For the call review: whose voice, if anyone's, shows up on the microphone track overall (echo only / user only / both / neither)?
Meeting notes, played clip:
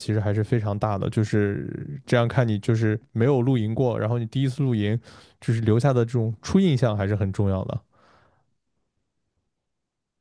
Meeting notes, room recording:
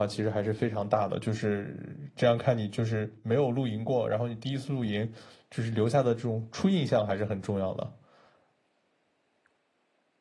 echo only